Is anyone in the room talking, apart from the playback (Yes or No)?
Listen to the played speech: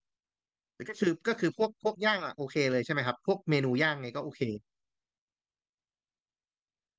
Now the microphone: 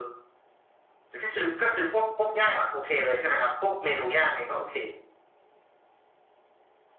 No